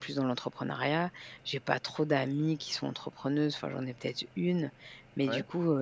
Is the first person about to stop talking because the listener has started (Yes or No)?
No